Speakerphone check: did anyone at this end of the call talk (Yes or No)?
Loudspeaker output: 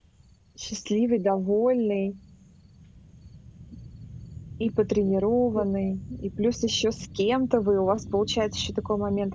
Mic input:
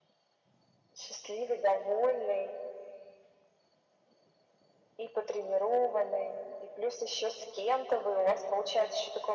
No